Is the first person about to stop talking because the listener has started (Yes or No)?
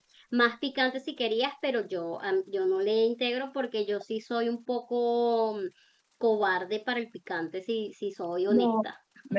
Yes